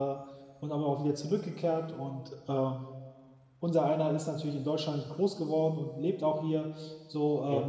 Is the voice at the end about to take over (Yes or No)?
No